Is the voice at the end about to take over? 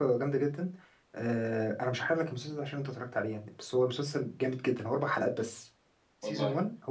No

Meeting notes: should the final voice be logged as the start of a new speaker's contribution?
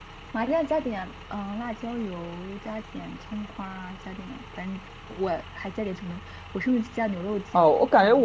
Yes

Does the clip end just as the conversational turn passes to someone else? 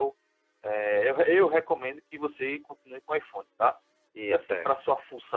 No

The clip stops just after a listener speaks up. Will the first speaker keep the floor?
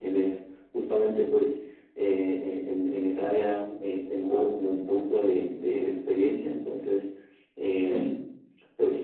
Yes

